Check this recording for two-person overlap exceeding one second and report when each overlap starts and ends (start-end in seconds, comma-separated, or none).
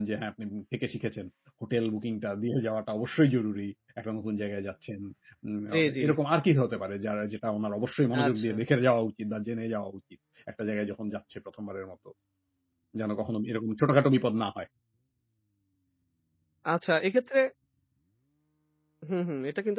none